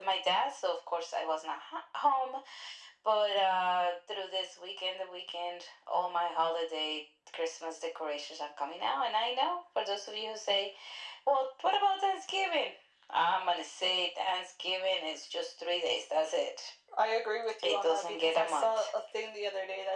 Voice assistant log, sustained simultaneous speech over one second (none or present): present